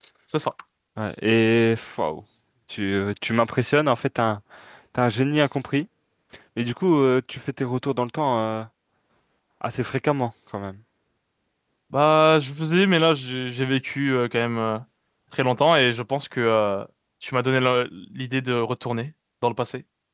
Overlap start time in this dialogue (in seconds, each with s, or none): none